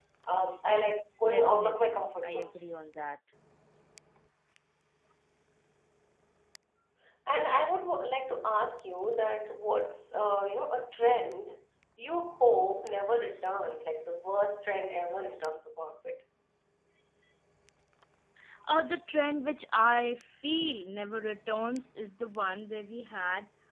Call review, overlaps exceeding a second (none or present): present